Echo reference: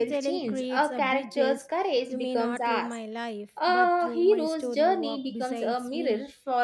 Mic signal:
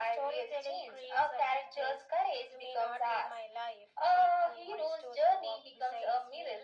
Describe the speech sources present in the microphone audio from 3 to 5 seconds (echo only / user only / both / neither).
echo only